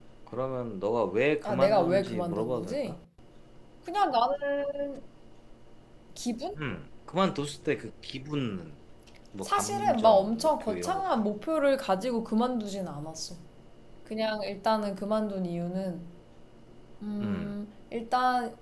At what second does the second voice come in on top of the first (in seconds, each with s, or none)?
1.4 s